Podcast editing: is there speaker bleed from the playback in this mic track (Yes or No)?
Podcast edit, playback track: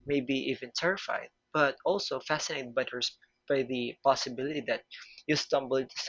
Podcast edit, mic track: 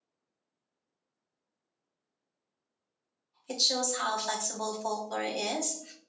No